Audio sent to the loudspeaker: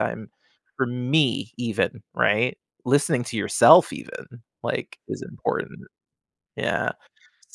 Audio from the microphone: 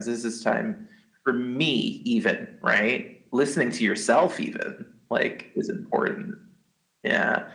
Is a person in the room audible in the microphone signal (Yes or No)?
No